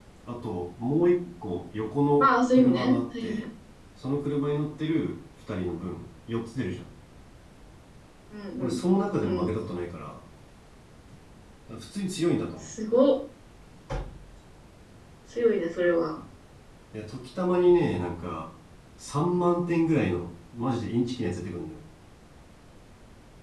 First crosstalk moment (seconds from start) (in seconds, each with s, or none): 2.2 s